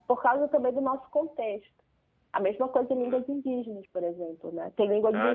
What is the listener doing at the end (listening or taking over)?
taking over